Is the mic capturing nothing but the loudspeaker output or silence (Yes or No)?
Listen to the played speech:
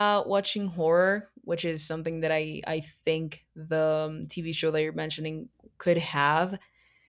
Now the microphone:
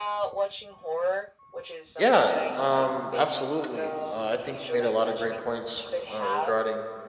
No